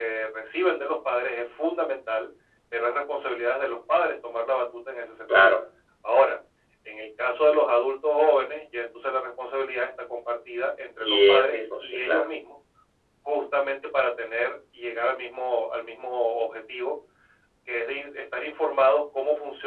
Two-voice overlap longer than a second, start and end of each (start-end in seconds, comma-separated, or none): 11.0-12.2